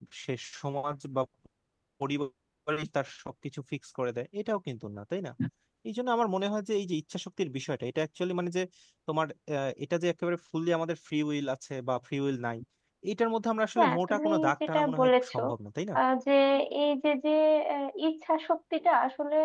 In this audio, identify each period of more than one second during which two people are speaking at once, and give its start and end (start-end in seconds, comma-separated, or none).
13.8-15.4